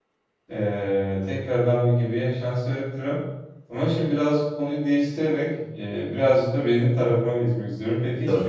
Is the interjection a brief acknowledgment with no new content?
Yes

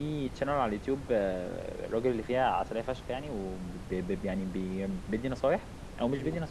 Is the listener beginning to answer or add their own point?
No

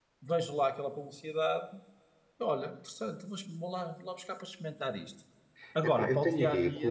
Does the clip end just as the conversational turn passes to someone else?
Yes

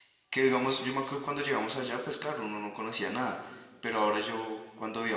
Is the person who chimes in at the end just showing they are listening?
Yes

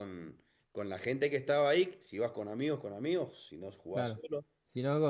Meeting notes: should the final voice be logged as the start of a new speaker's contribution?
Yes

